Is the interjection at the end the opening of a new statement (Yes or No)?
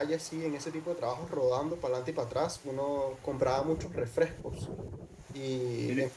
No